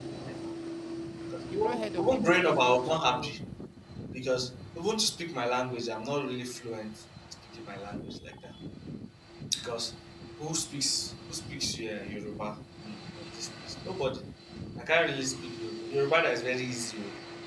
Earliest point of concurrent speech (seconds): 1.5 s

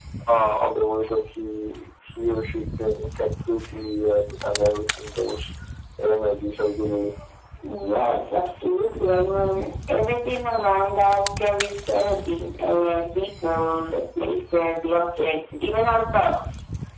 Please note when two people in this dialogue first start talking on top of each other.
none

